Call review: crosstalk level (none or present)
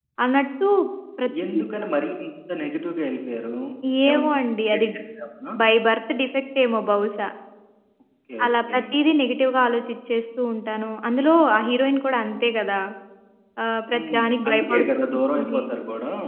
present